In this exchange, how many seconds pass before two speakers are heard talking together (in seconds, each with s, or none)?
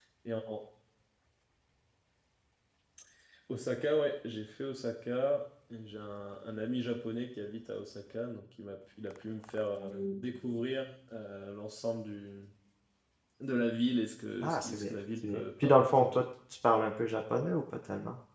14.4 s